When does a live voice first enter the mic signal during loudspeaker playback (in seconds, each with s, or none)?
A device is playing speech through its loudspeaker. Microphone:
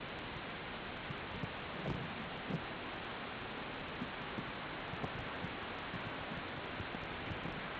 none